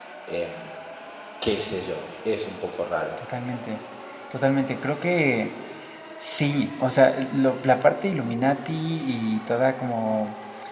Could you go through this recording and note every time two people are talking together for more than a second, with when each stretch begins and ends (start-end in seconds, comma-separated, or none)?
none